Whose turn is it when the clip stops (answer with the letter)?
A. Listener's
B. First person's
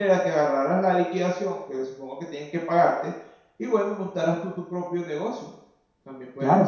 A